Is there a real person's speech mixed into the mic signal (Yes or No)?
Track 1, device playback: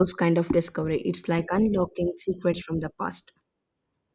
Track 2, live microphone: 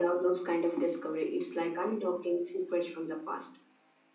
No